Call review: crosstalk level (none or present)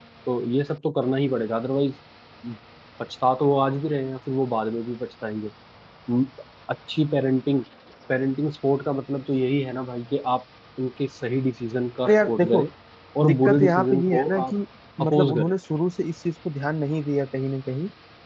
present